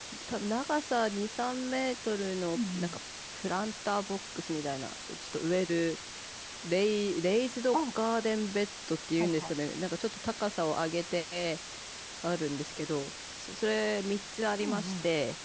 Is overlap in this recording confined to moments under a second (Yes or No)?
Yes